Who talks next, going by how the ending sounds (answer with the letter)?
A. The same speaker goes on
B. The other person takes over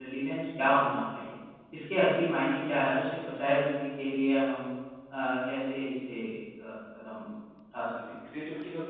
B